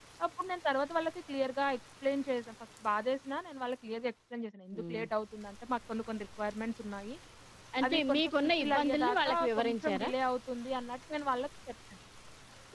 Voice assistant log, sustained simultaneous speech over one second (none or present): present